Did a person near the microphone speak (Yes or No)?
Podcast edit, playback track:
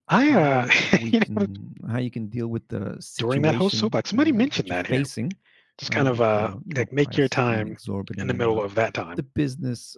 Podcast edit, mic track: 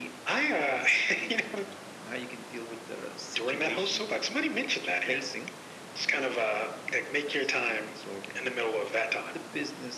No